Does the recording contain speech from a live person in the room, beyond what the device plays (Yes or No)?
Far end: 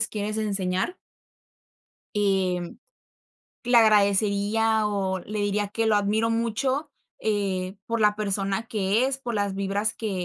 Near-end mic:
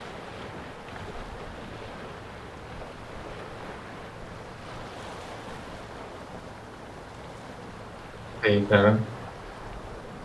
Yes